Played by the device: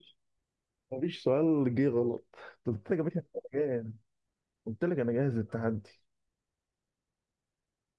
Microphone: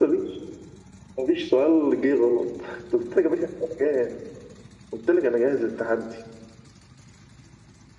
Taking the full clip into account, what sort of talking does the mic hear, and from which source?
echo only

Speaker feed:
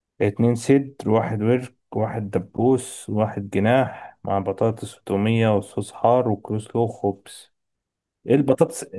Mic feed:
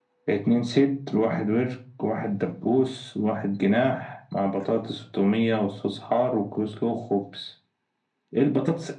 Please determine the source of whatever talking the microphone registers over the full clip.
echo only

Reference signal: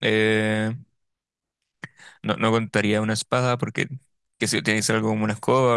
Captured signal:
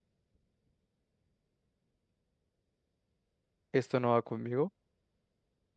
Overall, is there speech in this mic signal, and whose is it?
user only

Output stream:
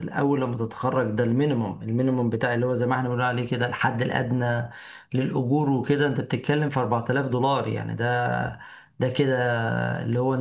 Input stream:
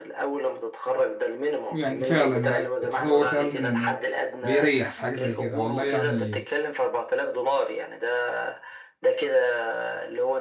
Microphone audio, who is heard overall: both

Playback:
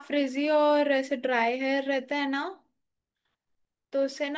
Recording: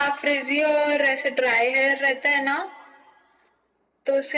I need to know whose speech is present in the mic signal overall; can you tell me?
echo only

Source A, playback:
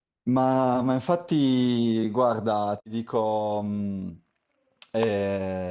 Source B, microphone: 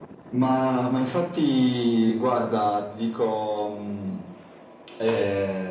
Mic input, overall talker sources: echo only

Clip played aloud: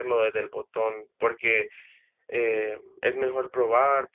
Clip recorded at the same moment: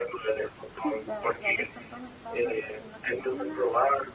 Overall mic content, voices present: both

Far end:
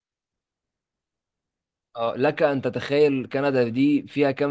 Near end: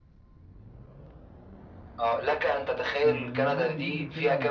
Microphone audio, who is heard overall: both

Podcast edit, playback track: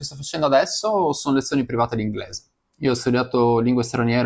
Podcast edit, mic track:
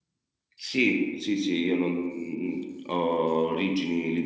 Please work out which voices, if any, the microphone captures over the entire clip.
user only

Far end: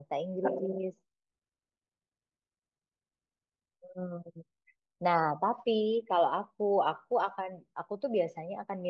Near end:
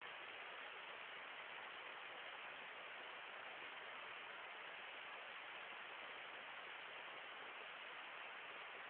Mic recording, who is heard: neither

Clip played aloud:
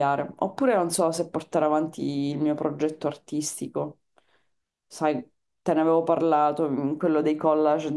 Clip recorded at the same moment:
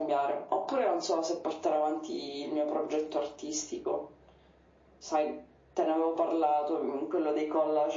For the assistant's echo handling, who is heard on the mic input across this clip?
echo only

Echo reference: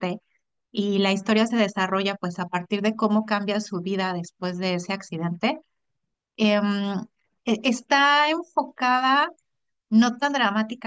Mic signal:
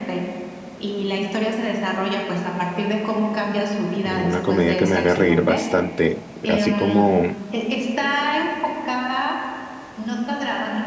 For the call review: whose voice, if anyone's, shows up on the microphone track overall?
both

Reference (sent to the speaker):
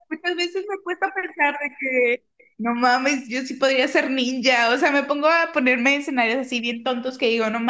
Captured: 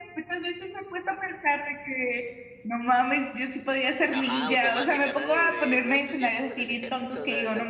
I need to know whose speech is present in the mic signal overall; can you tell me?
both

